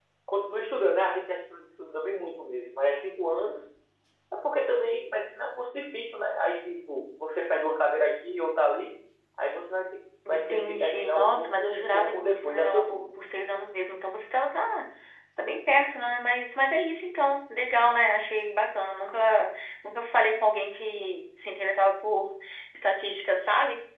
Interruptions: present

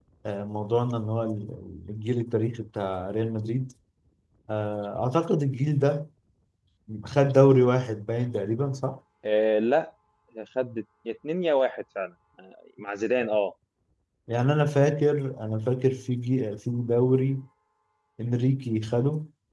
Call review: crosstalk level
none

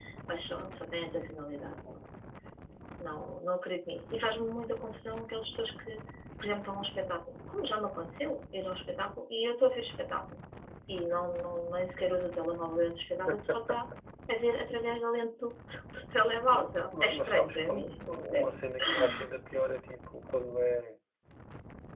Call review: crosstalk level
present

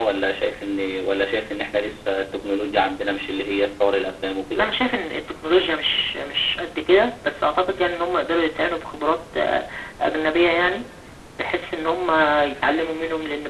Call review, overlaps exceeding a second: none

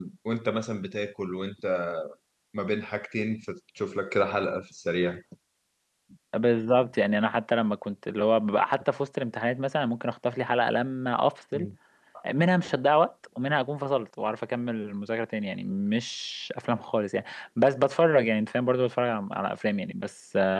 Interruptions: none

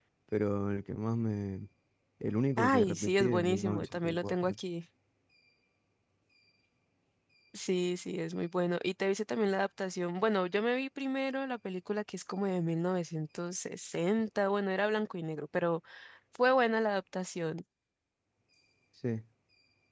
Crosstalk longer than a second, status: present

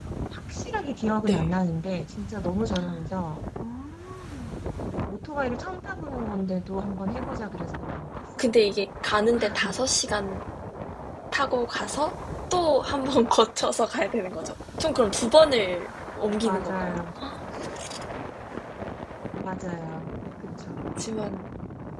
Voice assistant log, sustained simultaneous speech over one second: none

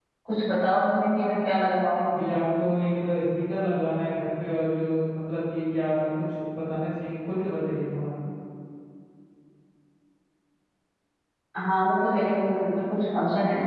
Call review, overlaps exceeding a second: none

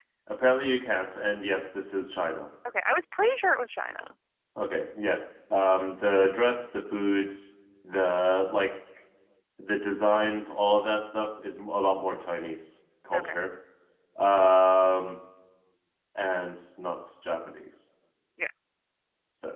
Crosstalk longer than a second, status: none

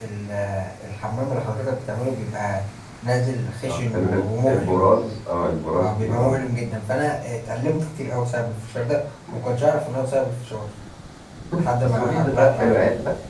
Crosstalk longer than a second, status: present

